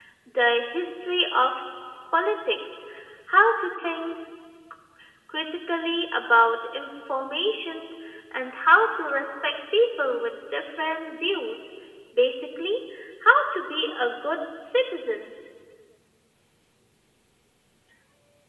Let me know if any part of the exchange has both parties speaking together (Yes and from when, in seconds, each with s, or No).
No